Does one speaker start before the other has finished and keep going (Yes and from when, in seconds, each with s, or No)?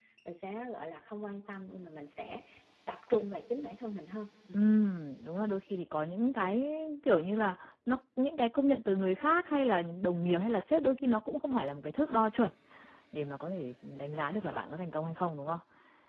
No